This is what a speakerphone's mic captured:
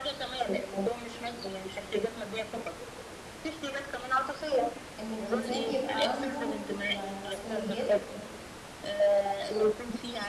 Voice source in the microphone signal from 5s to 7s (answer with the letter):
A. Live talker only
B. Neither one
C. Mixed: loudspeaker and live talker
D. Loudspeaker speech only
C